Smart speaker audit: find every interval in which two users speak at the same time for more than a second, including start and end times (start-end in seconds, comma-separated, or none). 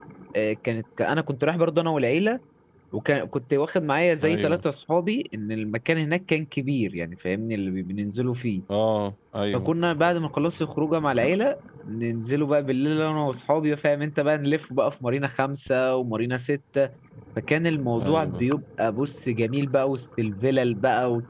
none